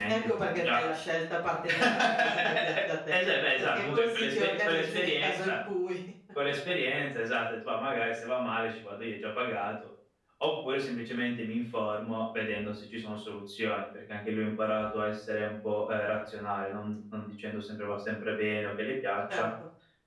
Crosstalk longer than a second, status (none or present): present